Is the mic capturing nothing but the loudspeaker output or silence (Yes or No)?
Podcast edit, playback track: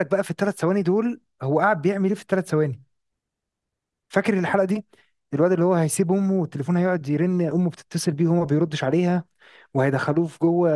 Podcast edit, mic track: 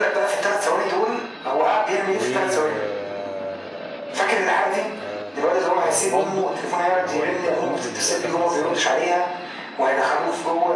No